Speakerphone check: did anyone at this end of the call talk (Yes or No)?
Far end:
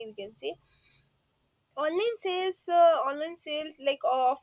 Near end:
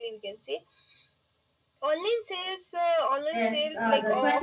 Yes